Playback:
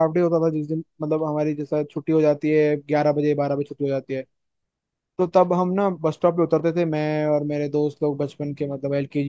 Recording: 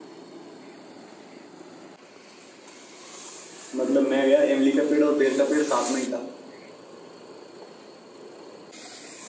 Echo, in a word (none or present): none